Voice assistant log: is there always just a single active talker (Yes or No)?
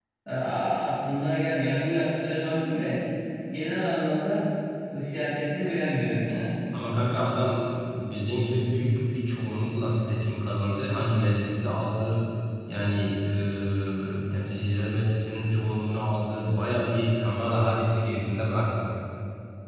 Yes